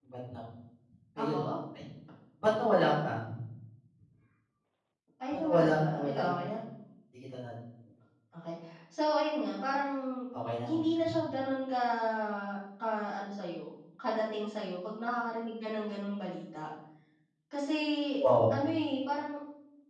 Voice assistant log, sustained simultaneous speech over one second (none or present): present